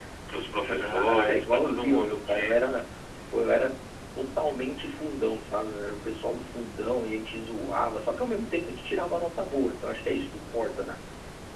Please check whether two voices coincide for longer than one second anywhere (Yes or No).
Yes